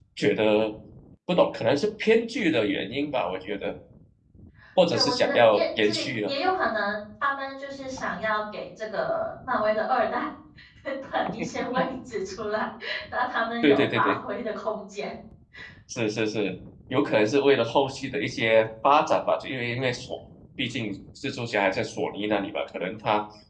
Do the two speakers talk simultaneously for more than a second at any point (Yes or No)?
Yes